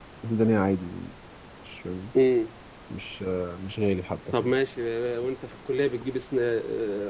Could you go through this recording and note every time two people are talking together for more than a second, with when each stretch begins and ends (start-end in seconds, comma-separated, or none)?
none